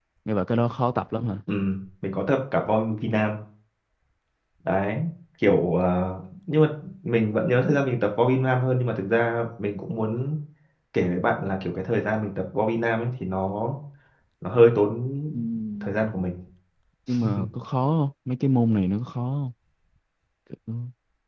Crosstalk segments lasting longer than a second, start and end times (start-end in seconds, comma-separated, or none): none